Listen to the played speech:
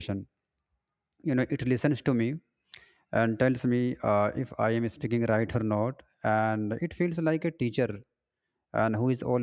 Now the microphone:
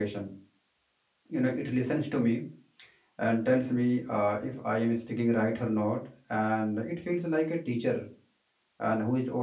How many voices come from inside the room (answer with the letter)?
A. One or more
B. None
B